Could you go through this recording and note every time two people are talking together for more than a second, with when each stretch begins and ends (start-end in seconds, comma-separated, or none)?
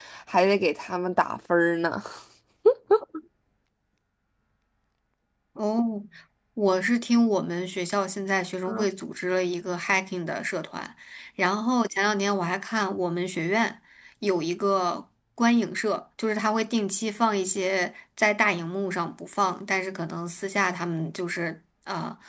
none